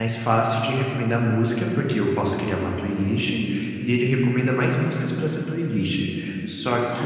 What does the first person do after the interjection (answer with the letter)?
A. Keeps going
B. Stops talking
A